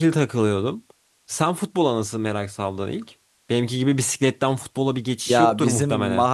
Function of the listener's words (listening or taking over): taking over